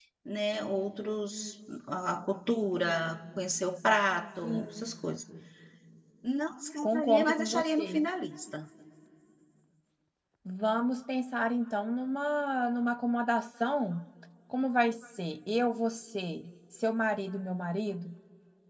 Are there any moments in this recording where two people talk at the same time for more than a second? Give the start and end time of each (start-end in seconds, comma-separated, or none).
6.8-8.0